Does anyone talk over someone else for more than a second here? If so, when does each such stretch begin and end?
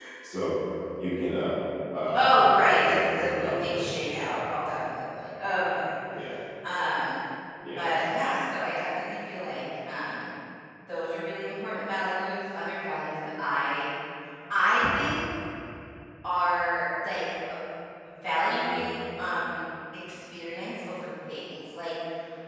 2.1-4.5

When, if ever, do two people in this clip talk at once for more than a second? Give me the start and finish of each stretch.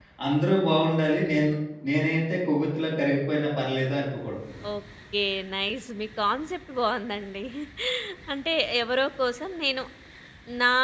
none

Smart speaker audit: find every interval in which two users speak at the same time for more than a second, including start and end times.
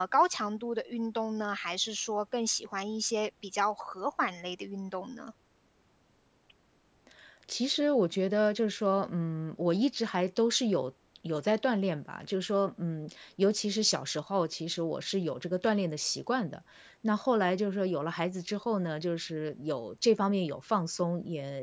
none

